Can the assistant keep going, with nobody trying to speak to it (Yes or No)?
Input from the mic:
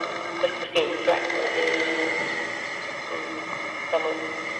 Yes